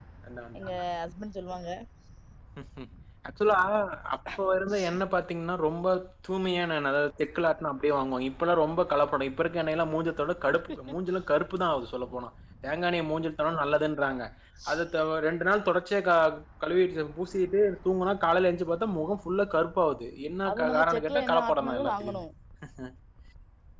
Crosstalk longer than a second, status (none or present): present